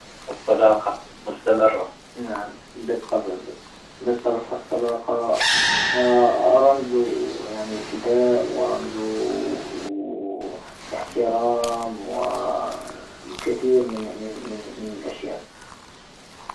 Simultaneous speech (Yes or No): No